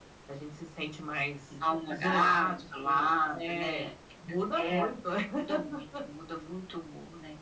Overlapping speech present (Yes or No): Yes